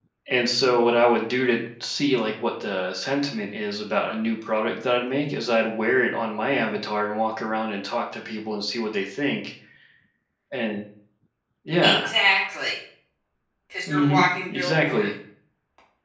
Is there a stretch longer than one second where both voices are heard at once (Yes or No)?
Yes